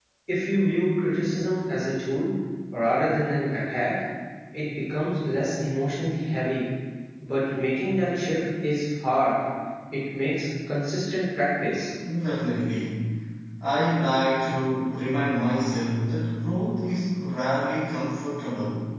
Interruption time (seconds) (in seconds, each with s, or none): none